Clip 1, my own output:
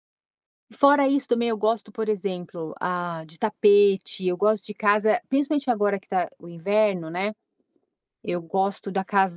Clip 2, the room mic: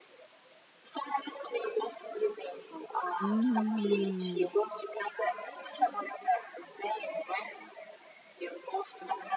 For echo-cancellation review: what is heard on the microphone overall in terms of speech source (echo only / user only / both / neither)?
both